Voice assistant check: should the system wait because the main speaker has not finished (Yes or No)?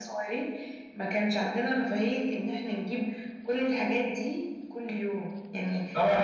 No